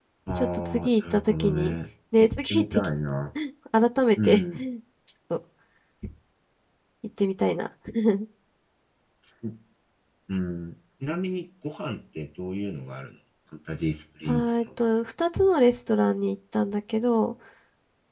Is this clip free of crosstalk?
No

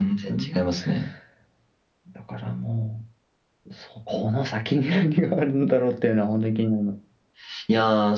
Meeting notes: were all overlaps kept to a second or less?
Yes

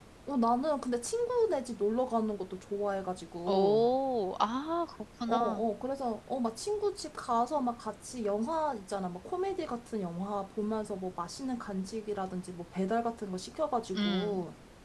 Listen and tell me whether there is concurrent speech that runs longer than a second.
No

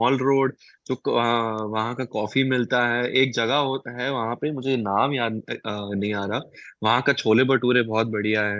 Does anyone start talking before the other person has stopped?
No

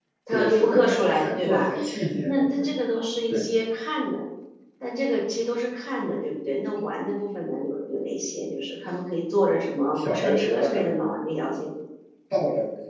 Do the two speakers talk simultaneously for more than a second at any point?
Yes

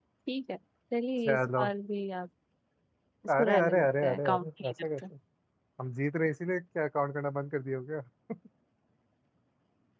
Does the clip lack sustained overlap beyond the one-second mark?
No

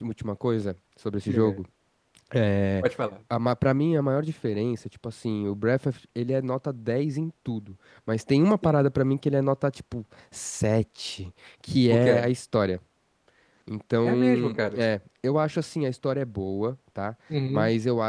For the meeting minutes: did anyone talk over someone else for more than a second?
No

